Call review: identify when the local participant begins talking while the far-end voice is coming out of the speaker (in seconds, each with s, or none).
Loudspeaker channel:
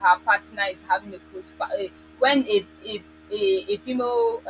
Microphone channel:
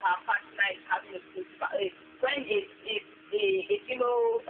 none